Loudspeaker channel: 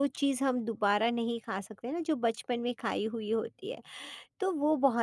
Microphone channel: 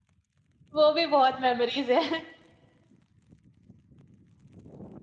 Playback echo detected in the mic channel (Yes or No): No